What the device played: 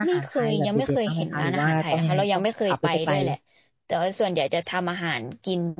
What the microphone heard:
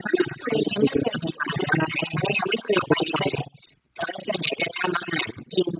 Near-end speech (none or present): none